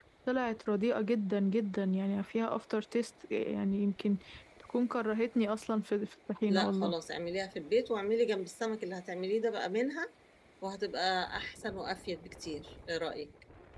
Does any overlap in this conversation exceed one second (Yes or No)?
No